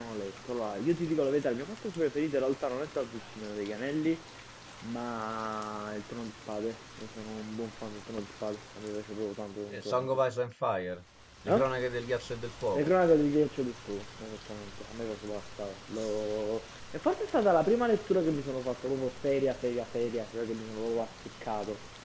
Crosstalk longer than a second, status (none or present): none